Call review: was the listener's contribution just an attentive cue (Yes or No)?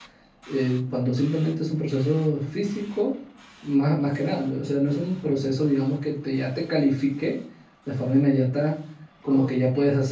Yes